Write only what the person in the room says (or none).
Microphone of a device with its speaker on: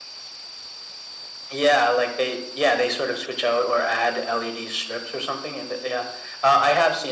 none